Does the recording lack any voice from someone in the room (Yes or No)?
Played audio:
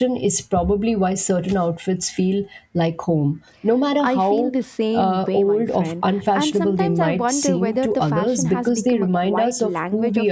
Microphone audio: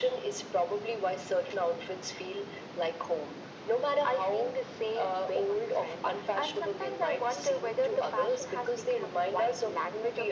Yes